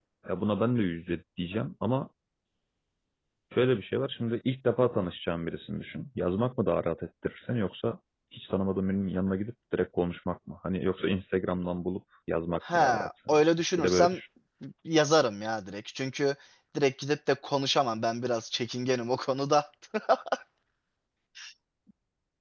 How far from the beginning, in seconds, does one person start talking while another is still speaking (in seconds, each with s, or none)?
12.6 s